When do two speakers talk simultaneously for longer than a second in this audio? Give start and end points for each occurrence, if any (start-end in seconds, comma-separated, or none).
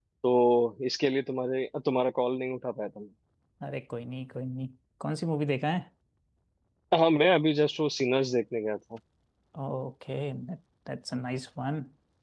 none